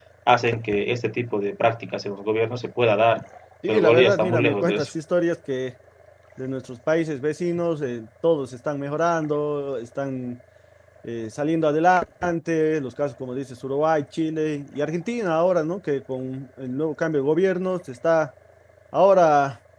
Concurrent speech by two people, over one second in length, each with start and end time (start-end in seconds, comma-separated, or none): 3.7-4.9